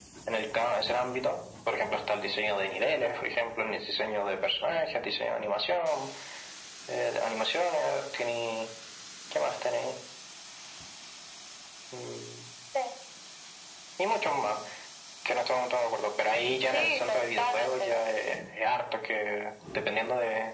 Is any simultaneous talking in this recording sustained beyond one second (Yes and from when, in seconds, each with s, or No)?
Yes, from 16.7 s